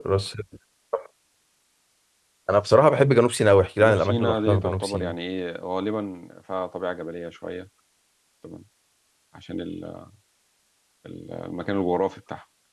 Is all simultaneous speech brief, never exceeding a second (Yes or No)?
No